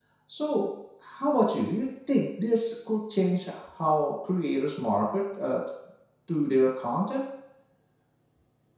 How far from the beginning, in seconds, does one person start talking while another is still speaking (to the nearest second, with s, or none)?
none